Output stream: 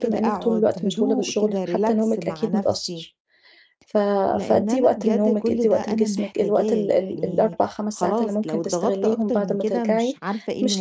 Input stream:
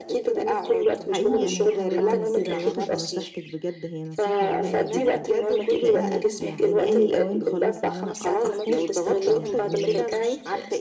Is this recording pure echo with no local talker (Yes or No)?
No